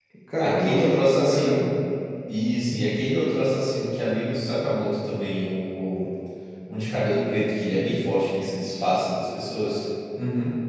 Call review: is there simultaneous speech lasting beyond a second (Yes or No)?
Yes